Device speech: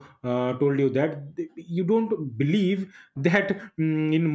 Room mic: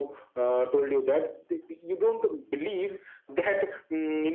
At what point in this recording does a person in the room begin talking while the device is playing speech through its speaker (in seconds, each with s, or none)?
none